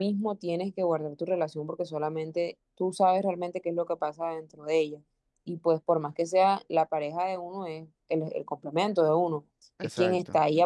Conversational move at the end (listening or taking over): listening